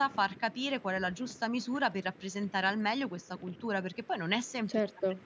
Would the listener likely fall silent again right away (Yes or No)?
Yes